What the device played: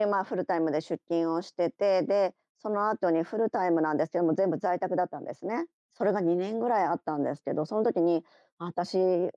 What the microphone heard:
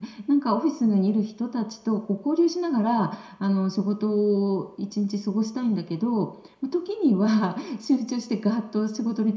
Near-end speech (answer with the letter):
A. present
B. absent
A